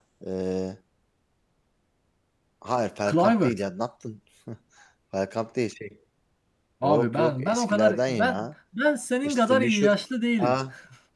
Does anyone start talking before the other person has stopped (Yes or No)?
Yes